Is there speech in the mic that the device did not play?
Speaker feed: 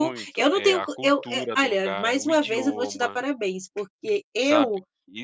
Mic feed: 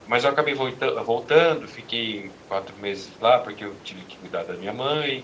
Yes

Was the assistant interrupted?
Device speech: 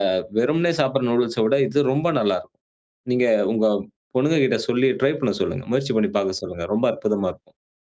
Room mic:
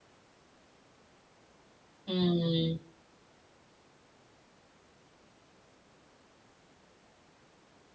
Yes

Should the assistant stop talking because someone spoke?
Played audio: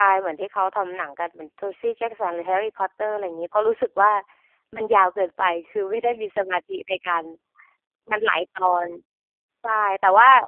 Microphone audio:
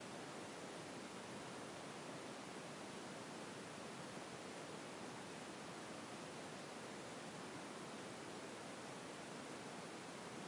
No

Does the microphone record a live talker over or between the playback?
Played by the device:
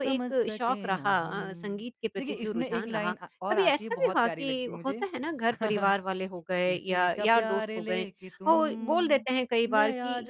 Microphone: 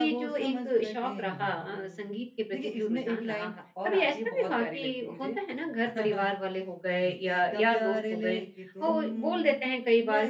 No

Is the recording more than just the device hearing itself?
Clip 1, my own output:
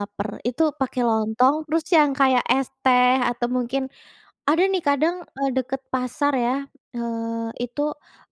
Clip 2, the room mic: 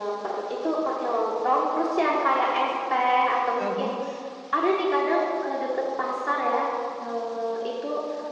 Yes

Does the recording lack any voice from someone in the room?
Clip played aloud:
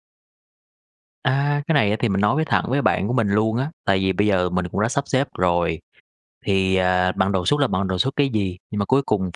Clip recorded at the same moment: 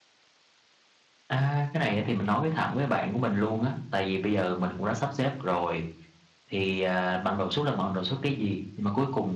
Yes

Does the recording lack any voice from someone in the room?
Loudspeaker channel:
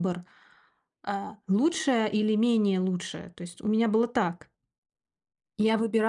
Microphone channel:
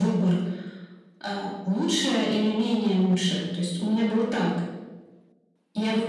Yes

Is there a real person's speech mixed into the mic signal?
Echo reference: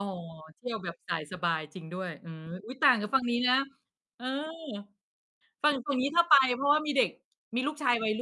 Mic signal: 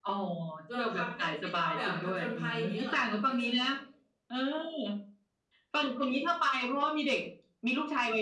Yes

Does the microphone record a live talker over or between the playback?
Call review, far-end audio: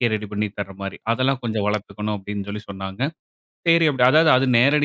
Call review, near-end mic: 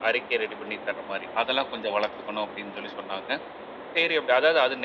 No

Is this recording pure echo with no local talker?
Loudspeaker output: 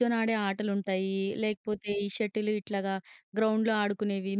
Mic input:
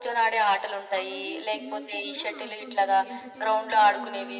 No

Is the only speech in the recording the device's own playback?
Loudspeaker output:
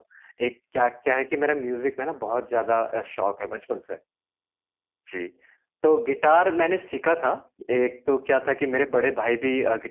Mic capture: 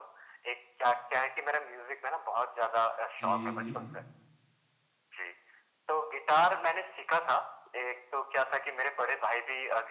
No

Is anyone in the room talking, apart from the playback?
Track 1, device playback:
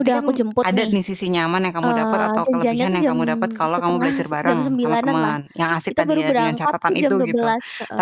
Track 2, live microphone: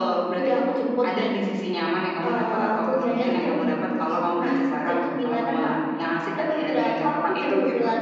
No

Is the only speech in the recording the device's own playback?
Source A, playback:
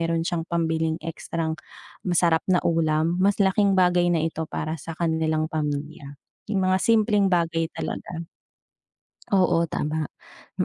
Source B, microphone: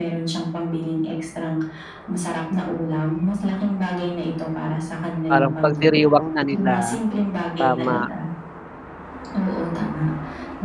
No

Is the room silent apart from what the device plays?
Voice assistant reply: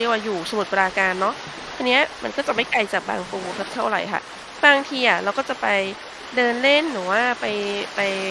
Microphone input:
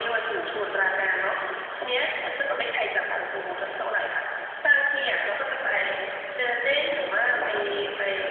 No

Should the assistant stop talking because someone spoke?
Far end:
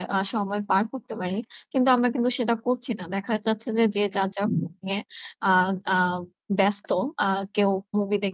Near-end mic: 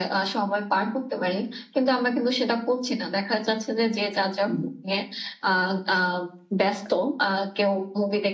No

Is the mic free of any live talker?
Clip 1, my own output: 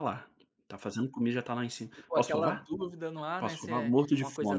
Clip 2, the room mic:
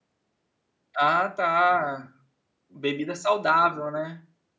No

